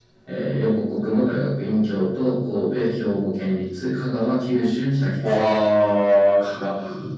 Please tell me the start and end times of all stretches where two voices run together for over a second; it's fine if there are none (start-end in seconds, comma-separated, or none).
none